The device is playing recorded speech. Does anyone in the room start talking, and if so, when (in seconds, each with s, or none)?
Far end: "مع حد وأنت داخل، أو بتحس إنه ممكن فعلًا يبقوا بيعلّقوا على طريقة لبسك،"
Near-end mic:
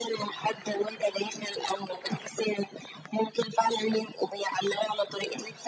none